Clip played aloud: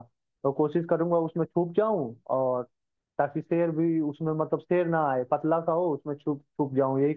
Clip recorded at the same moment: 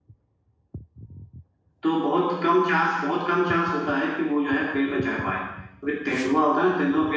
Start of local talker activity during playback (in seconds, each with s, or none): 1.8 s